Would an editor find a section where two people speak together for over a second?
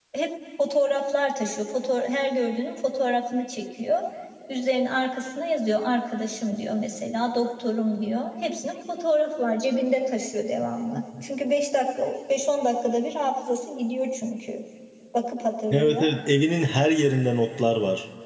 No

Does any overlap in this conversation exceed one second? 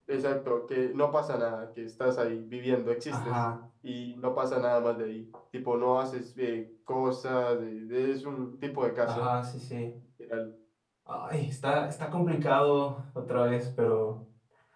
No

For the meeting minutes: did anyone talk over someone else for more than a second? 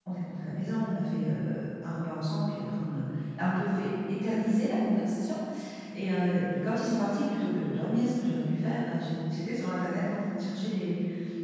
No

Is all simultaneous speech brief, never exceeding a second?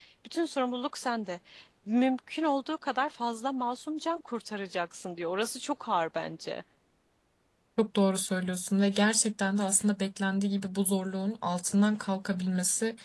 Yes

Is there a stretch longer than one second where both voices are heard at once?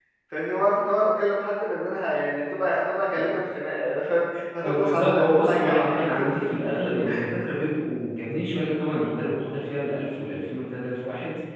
Yes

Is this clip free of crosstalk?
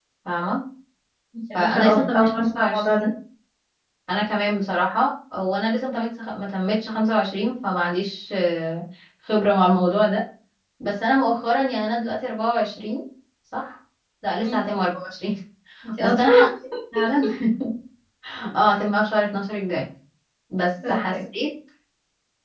No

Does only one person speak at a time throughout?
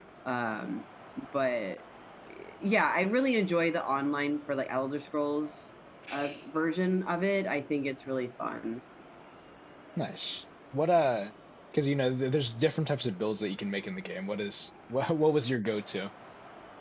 Yes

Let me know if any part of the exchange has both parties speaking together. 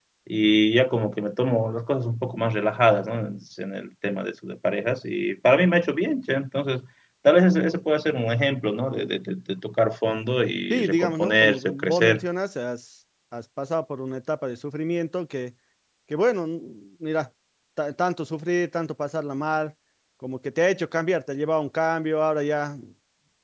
Yes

